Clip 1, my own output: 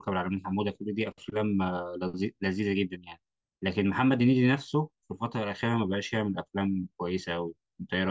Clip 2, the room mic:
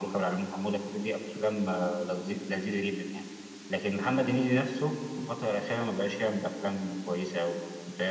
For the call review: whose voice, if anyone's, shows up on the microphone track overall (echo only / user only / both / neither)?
echo only